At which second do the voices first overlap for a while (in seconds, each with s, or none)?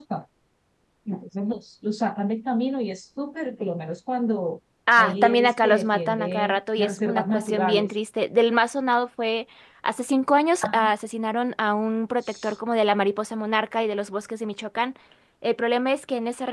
5.0 s